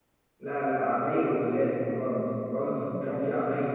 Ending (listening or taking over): listening